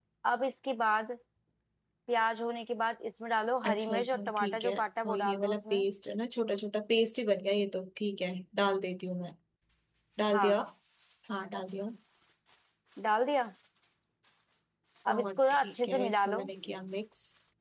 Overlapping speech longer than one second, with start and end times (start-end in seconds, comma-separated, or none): 3.6-5.8, 15.1-16.4